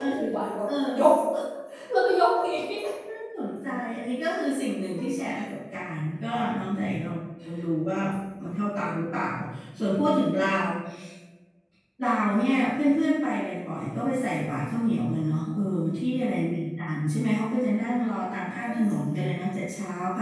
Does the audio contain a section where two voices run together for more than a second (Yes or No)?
No